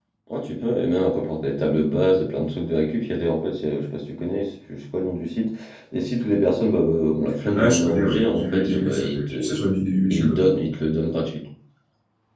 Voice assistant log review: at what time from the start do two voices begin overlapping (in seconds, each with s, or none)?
7.5 s